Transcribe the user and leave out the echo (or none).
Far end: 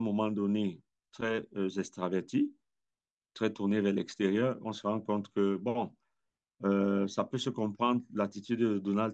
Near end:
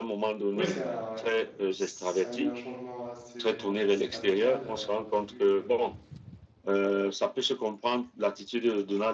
Oui, ça, ça a eu un changement assez, assez radical. euh, Au début, le-